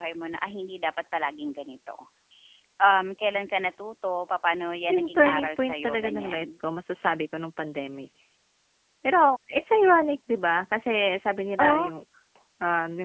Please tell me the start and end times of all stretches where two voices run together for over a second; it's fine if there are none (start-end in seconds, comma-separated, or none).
4.9-6.5